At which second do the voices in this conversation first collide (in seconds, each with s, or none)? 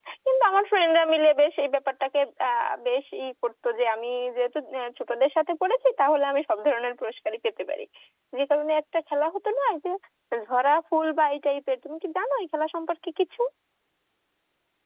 none